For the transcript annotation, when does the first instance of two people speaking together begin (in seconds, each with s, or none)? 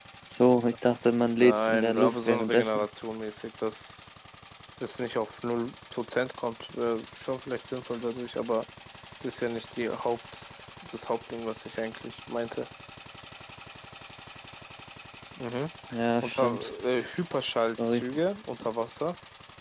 1.4 s